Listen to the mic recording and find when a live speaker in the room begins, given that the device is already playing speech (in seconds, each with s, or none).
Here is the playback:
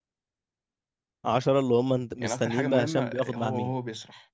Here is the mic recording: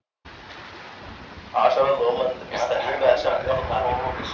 none